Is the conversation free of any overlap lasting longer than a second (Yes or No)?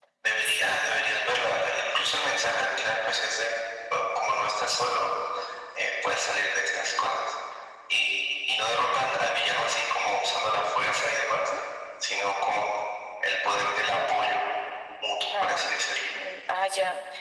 Yes